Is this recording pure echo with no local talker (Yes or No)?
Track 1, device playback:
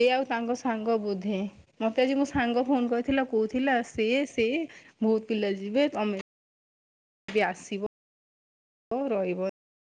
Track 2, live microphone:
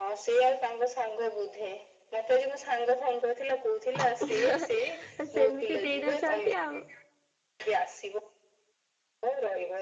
No